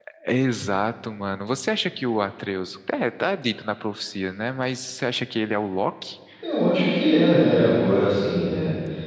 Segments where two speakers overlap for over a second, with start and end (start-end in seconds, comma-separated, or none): none